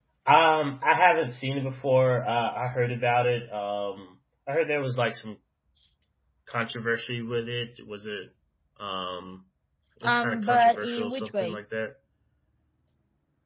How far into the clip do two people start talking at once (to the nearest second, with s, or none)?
10 s